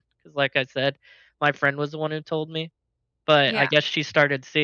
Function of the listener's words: listening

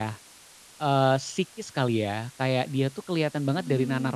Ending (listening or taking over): listening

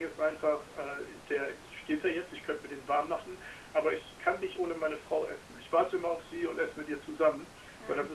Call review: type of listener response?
listening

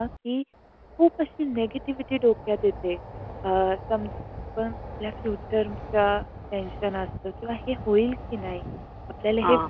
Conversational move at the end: listening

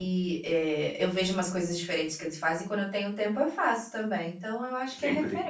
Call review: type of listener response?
taking over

